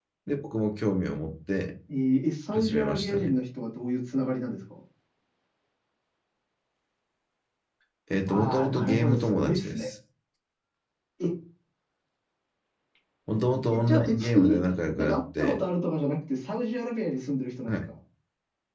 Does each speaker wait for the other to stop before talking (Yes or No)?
No